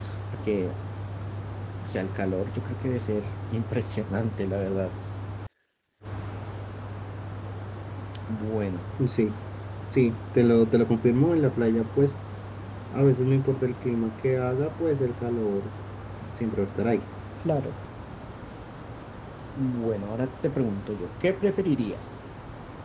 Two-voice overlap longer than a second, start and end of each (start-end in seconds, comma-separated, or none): none